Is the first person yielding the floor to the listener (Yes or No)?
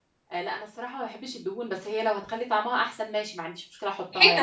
Yes